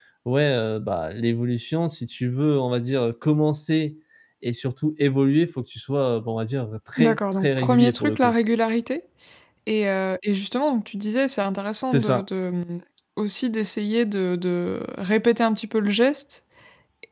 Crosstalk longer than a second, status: present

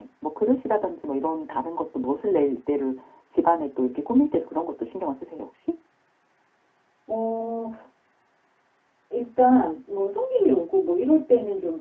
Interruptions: none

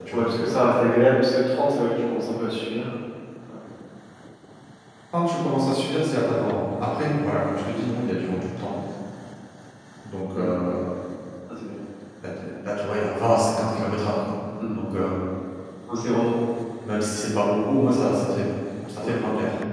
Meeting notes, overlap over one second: none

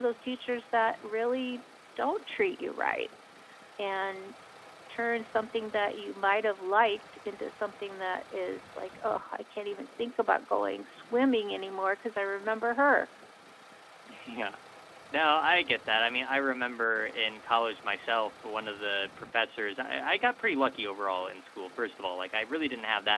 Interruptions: none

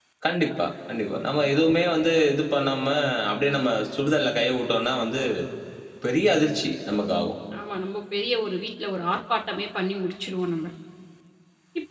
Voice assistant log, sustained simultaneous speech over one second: none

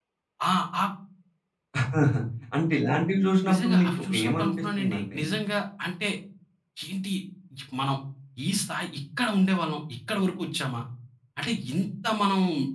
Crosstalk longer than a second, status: present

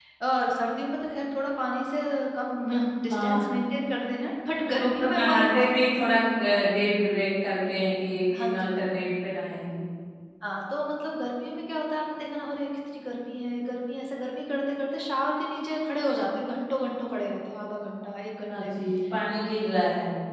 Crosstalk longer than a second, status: present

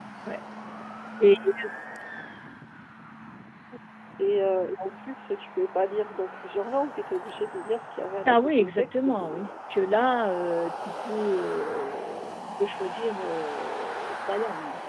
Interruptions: present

